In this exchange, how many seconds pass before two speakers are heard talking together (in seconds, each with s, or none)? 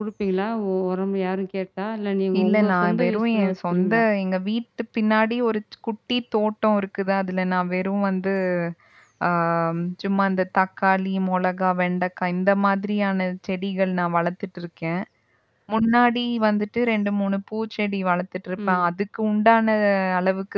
2.4 s